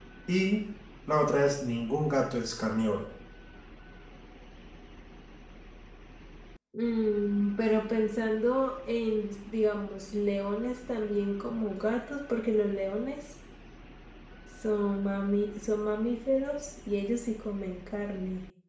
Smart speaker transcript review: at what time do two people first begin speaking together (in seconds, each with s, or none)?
none